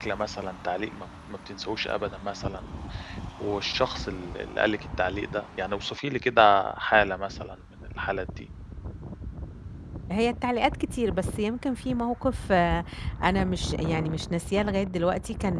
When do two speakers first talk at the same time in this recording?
none

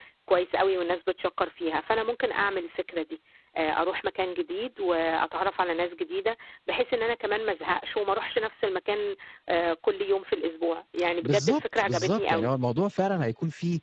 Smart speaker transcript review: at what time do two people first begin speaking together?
11.2 s

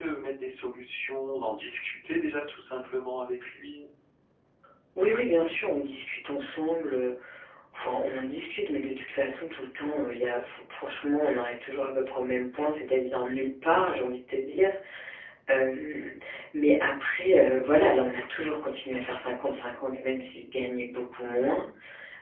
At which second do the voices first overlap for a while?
none

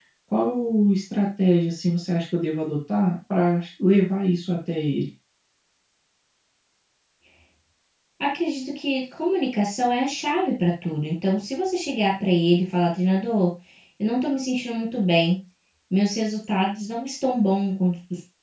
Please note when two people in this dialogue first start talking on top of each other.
none

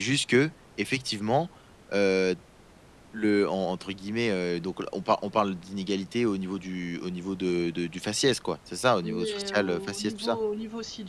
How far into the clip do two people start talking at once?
9.0 s

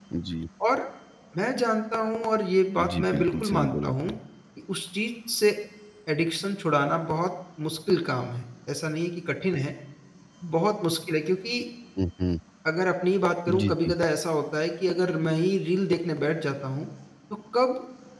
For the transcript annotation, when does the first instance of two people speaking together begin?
2.9 s

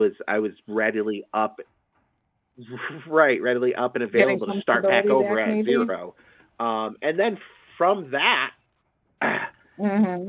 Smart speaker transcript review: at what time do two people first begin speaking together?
4.1 s

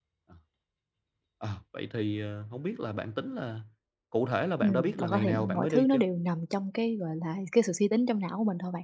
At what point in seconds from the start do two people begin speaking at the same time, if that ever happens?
4.6 s

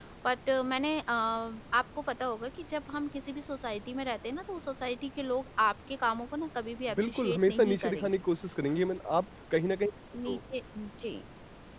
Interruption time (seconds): 6.9 s

